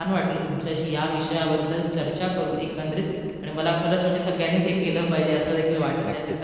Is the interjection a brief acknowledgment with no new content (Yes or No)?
Yes